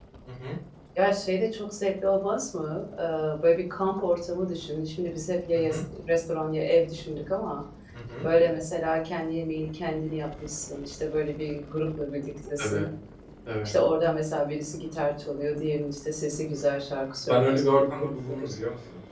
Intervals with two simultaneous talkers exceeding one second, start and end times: 17.2-18.6

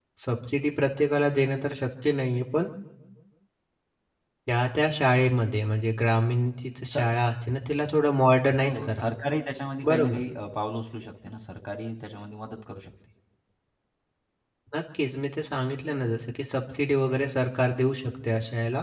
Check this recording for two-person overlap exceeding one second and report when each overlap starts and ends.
none

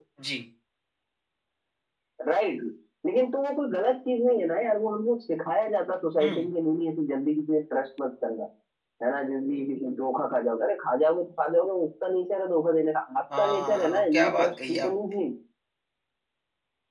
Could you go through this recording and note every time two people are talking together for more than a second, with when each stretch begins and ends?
13.4-14.9

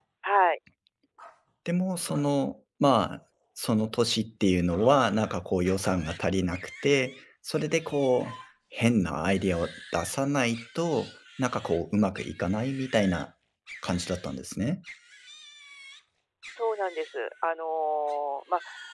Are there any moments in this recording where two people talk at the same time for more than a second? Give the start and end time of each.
none

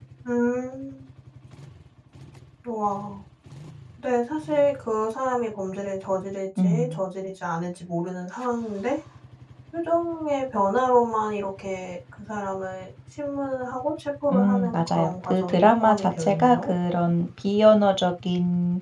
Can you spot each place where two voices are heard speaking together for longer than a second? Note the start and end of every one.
14.3-16.7

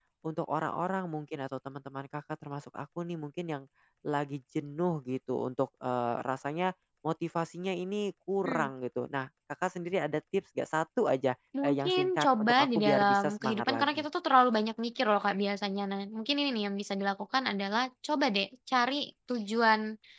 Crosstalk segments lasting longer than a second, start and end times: 11.6-14.0

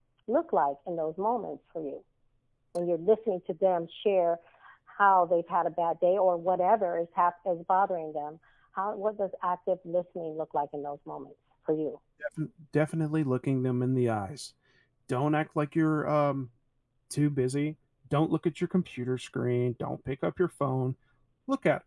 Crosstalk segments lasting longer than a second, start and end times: none

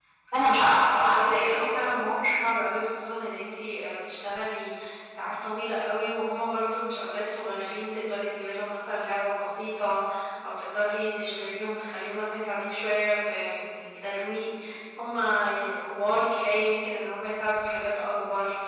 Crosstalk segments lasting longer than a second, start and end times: 1.0-2.4

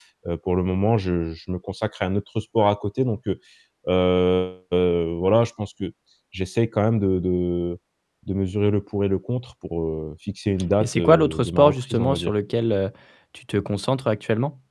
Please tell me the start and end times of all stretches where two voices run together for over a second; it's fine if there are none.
10.8-12.3

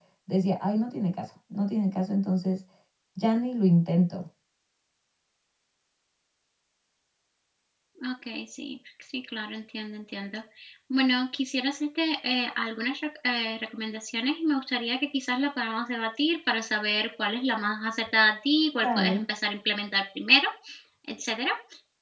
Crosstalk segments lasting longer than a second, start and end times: none

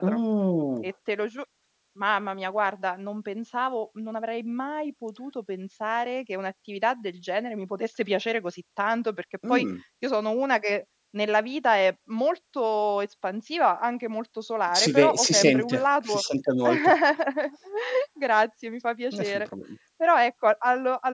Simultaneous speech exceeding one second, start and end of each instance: 14.8-16.2

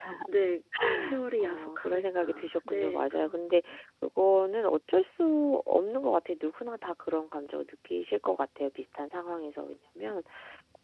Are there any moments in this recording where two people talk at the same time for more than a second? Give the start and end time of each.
1.4-3.4

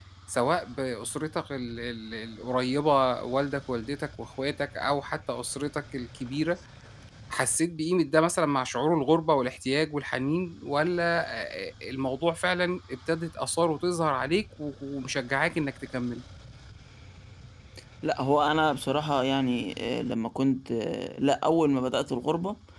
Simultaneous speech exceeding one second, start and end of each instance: none

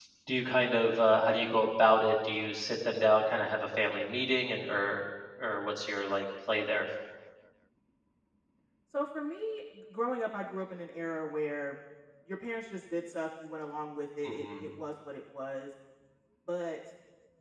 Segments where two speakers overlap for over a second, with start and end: none

